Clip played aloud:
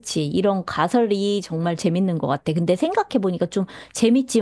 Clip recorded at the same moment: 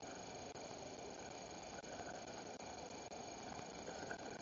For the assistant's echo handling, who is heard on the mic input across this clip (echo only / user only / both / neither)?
neither